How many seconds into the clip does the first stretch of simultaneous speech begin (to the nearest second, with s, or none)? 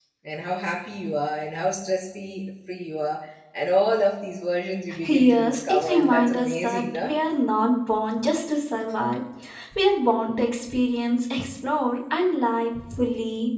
5 s